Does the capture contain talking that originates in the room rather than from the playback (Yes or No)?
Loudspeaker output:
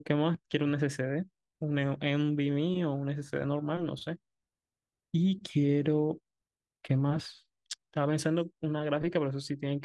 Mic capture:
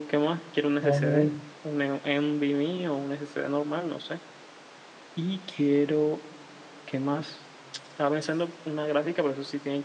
Yes